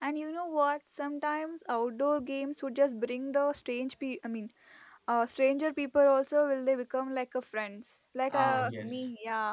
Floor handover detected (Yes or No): No